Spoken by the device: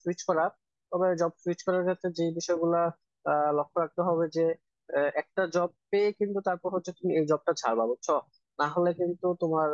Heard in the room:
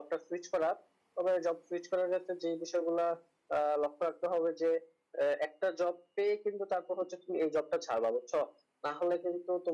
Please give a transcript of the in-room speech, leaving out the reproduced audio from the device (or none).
none